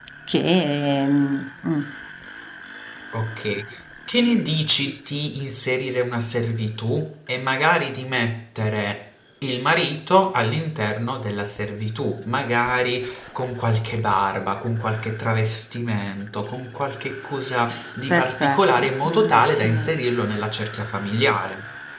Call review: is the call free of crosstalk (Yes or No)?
No